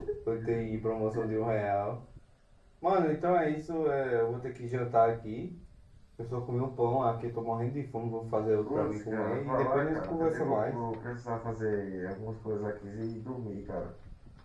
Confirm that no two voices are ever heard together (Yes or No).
No